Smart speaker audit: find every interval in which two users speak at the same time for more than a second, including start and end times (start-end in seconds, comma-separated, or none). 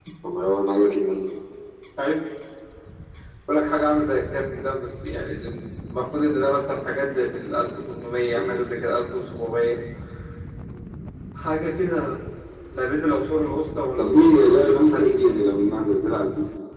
14.0-15.5